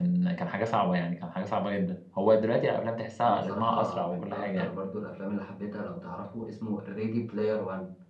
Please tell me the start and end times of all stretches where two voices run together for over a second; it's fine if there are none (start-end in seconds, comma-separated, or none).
3.3-4.7